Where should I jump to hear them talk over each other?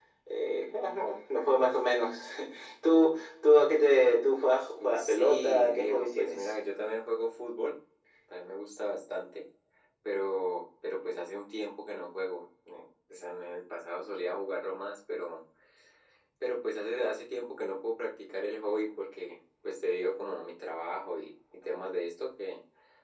4.8 s

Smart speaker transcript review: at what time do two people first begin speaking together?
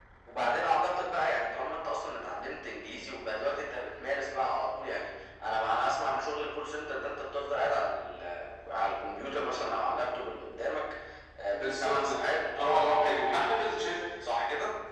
11.5 s

